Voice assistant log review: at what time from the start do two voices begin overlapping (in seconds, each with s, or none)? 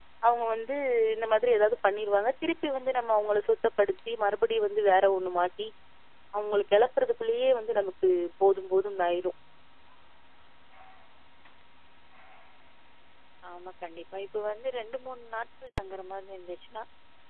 none